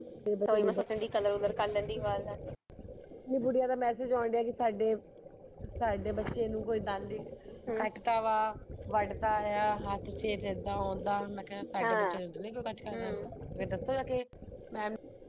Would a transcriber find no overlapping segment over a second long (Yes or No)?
Yes